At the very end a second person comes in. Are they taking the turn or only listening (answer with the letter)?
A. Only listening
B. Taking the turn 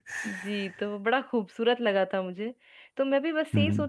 A